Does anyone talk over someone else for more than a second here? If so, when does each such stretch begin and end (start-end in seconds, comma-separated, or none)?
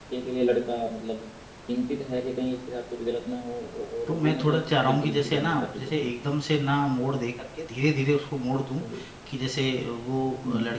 4.1-6.1